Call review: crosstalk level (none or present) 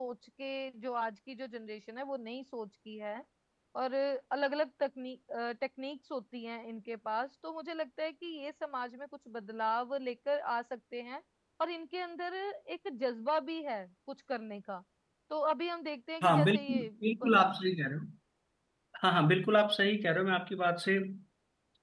present